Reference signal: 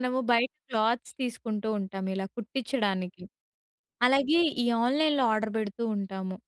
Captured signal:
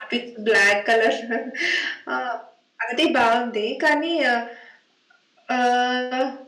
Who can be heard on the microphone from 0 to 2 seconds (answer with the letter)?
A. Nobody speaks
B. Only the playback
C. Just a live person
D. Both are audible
C